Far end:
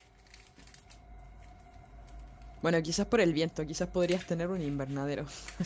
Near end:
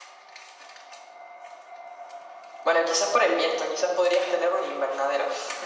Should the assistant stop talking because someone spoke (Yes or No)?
No